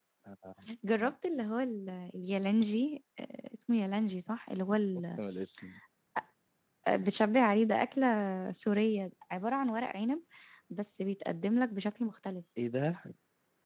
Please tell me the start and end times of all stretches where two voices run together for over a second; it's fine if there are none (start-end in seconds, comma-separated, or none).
none